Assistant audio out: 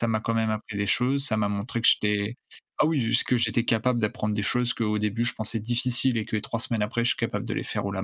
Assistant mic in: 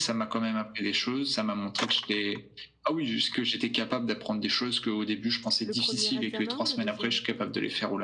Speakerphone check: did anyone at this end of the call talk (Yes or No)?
Yes